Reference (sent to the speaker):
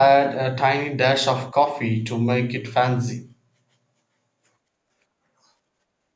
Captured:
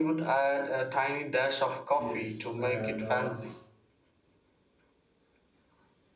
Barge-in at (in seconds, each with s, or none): 2.0 s